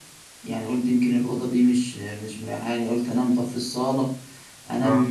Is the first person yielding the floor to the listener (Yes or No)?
No